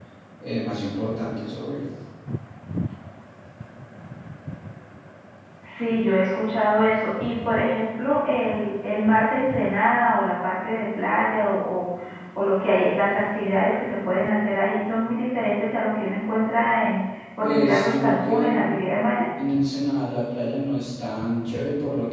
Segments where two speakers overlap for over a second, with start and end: 17.4-18.8

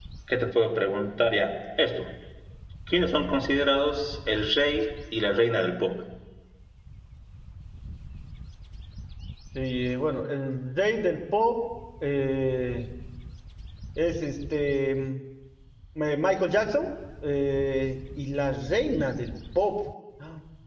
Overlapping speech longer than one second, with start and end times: none

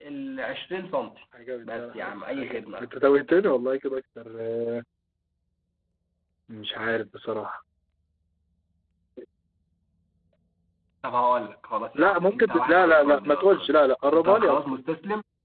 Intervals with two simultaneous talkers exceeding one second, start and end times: 1.6-2.9, 11.9-14.6

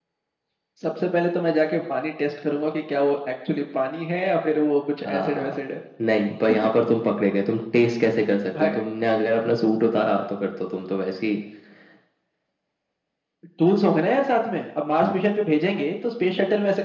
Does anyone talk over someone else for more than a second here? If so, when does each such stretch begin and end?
none

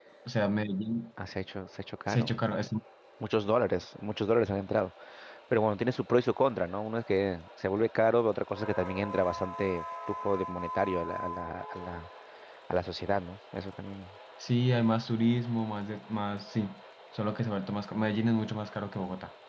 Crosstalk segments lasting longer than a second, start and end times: none

